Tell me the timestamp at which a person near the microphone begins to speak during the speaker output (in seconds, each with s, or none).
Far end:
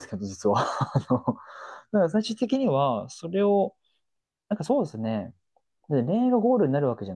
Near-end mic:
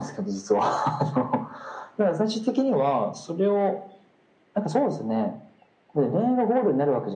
none